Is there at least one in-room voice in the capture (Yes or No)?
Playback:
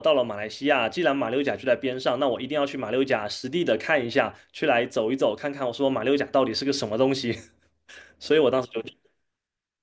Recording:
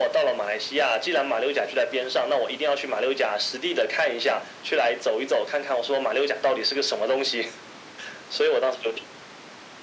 No